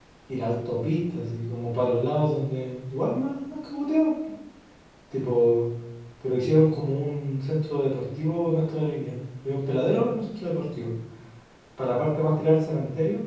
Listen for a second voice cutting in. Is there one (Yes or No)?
No